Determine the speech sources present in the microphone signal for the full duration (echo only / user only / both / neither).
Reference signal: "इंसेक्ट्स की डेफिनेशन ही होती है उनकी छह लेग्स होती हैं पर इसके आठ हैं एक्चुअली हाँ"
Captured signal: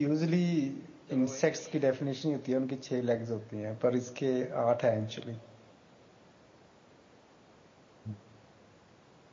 both